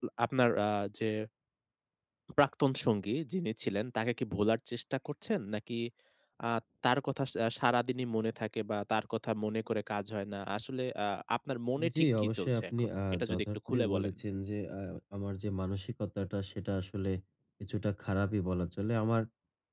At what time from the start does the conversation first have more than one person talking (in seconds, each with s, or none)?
11.8 s